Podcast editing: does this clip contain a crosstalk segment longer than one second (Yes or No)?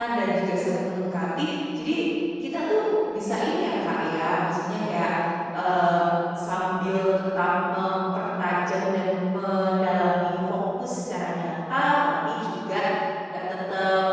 No